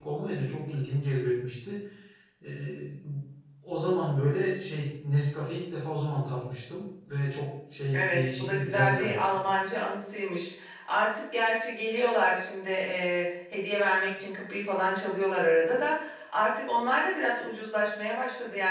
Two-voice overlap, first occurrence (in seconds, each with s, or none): 7.9 s